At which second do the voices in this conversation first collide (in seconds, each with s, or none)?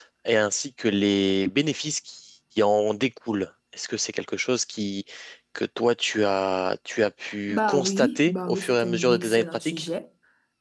7.5 s